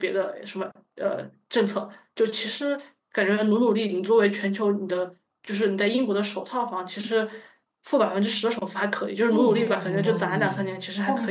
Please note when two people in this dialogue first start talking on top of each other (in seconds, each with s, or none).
9.3 s